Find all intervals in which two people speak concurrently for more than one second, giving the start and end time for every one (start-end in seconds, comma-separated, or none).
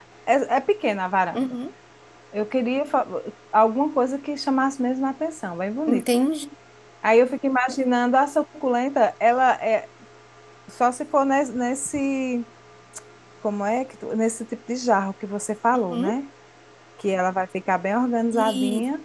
none